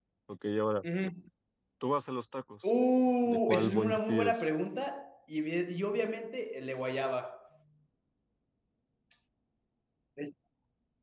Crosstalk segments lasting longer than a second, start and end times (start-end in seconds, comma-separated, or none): 3.2-4.5